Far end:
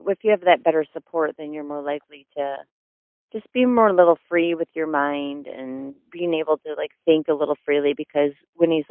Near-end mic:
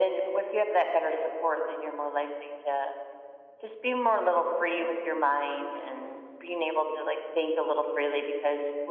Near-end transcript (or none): none